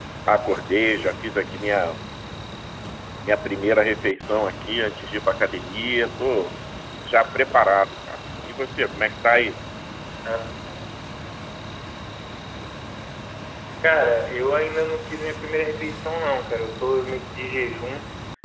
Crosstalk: none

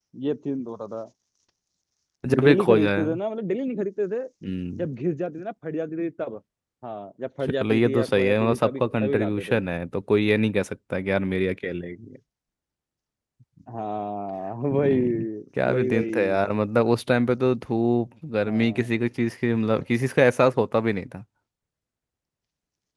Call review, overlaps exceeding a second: present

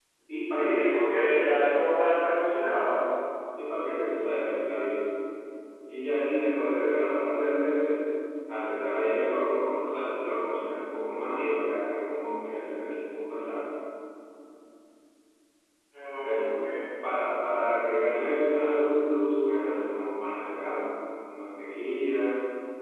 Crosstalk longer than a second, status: present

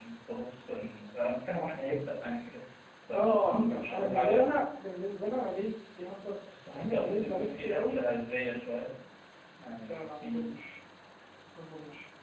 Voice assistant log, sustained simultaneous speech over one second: present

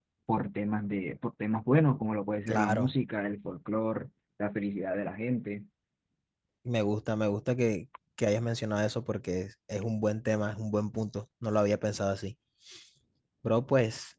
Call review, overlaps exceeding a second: none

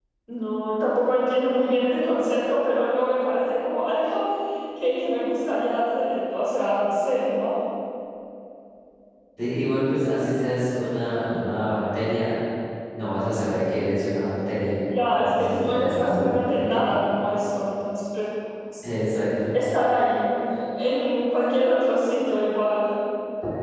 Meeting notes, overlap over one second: present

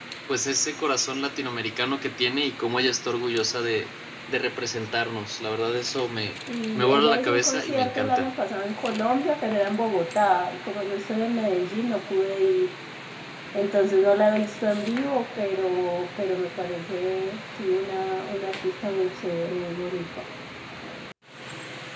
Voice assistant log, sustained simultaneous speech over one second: present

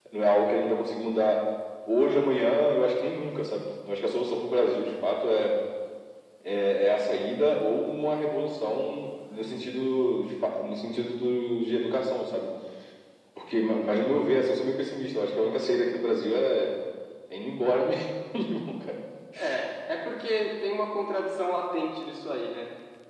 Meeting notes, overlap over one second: none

